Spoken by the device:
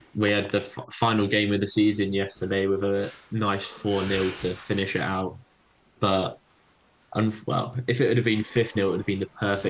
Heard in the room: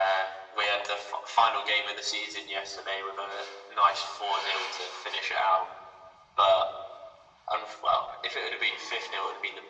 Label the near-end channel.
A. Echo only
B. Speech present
A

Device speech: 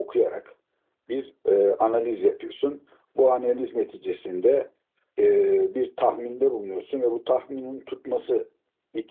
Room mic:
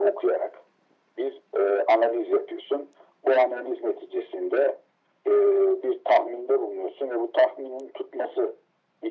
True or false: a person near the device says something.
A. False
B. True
A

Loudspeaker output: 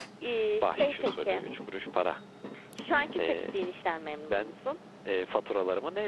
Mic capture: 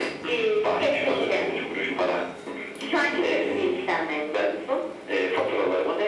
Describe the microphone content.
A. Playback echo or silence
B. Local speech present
A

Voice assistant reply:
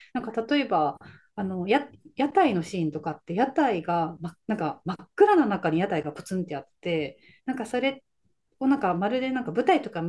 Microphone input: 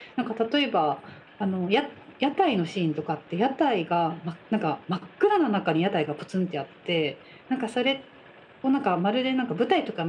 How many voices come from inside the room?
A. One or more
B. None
B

